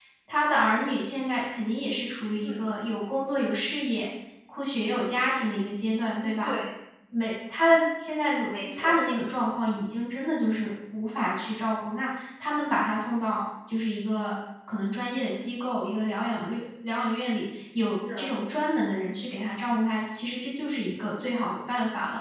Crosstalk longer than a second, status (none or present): none